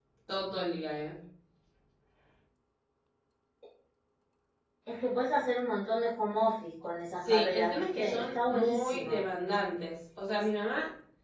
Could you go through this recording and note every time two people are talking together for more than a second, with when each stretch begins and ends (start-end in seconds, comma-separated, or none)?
7.3-9.2